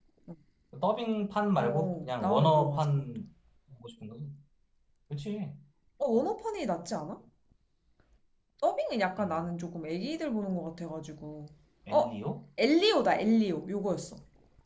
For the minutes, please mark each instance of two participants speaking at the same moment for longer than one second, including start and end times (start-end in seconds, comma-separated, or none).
1.6-3.1